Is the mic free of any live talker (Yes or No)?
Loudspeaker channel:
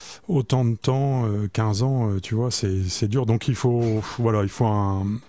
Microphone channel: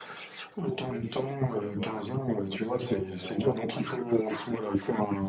No